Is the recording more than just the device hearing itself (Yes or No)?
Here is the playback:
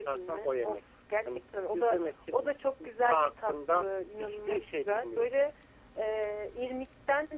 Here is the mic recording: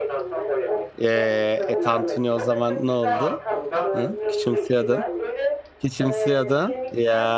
Yes